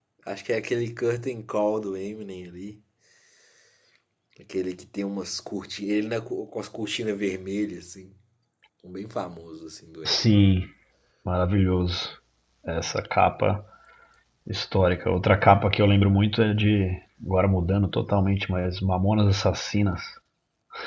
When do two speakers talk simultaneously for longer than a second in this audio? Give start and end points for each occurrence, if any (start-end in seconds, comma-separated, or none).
none